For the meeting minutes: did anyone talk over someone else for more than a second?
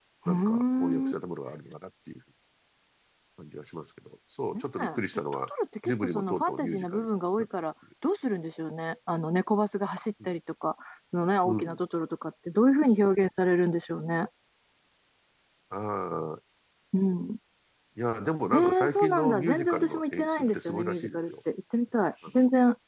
Yes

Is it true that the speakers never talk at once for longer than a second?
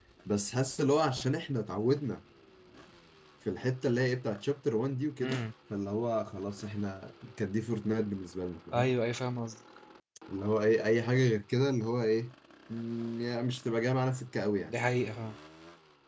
Yes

